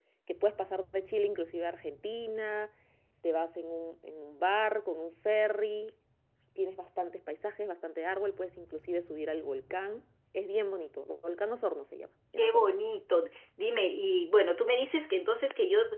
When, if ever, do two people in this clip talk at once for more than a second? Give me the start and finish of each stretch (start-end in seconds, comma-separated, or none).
none